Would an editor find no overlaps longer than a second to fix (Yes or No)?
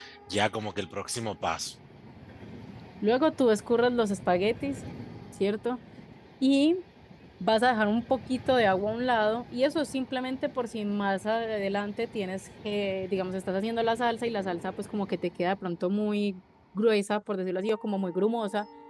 Yes